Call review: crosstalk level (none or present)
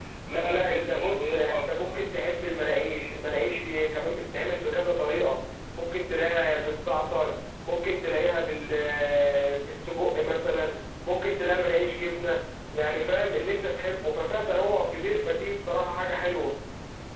present